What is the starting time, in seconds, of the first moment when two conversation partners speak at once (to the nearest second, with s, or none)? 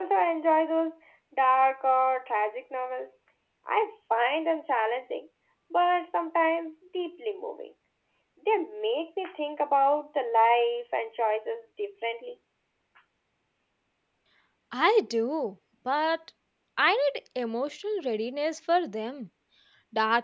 none